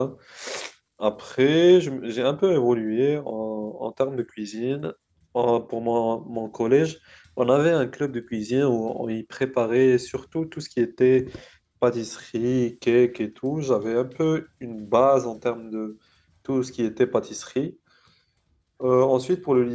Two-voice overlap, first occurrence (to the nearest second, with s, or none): none